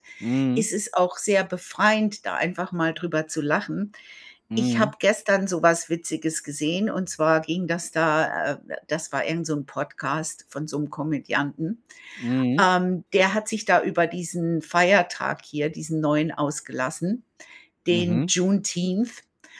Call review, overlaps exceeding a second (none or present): none